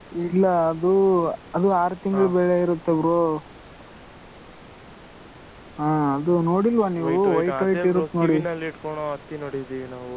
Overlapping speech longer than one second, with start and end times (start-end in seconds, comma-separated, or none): 7.0-8.4